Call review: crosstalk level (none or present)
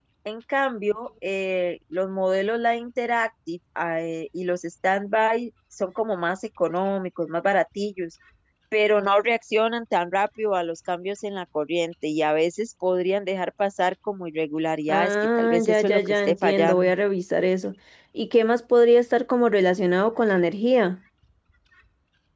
present